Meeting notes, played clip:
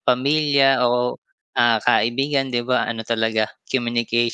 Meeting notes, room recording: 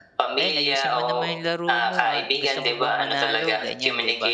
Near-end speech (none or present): present